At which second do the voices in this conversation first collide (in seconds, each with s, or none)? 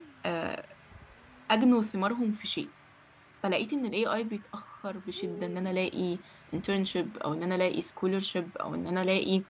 none